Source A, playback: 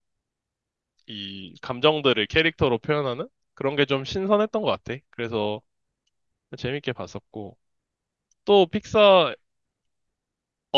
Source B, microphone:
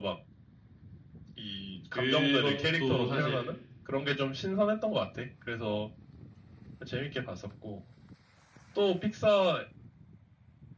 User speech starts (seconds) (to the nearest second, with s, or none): 2 s